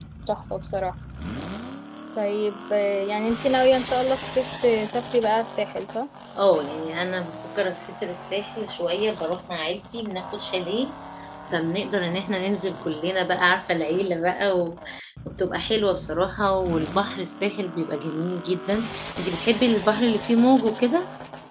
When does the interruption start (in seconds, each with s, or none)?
none